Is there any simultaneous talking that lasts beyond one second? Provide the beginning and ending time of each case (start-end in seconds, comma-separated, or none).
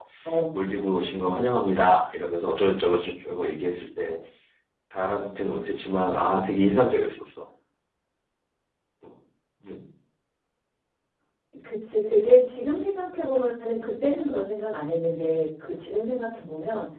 none